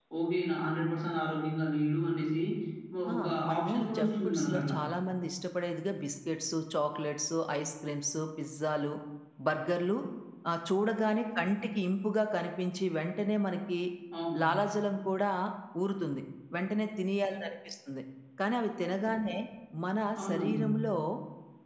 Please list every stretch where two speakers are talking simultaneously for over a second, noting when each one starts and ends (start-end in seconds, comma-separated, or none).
3.1-4.8